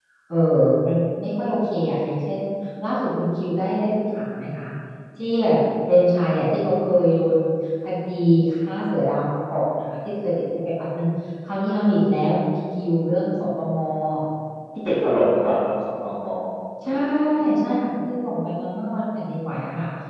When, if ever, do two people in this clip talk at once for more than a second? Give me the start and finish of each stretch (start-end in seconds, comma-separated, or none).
none